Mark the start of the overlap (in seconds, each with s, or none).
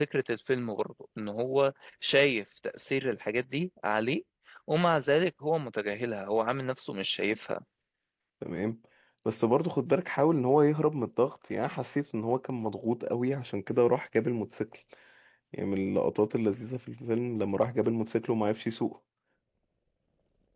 none